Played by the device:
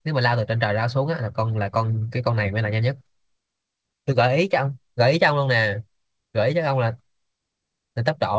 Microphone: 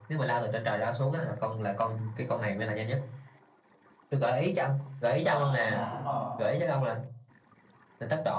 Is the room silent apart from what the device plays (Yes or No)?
No